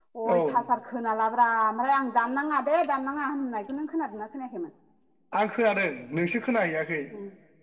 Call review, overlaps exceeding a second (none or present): none